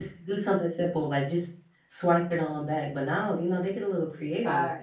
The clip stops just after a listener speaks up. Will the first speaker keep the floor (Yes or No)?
No